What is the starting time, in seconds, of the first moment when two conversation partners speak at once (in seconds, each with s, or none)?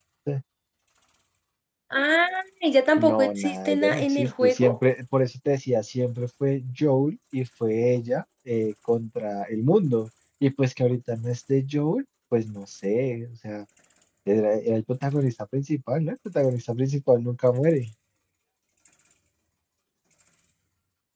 3.0 s